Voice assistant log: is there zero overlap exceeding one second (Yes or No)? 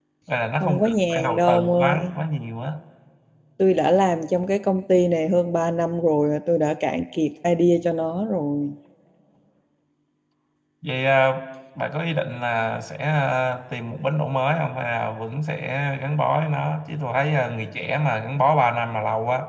No